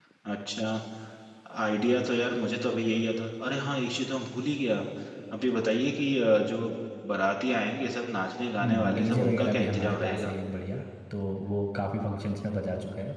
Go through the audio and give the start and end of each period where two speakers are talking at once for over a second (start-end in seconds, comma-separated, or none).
8.6-10.3